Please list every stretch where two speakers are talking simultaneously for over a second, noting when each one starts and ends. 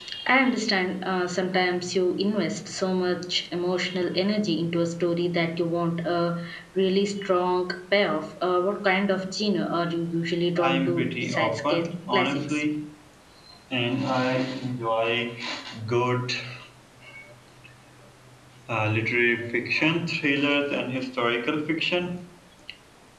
10.6-12.6

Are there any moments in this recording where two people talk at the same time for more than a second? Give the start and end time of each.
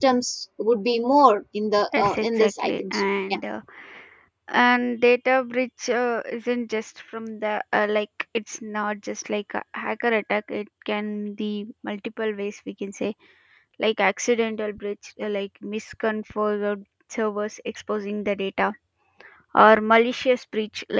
1.9-3.4

